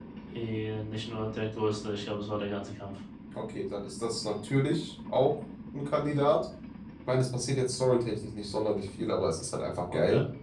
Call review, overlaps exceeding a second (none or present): none